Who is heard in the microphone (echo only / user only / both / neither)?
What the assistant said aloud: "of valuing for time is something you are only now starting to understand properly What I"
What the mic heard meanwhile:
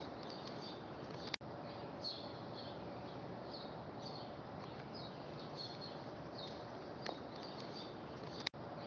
neither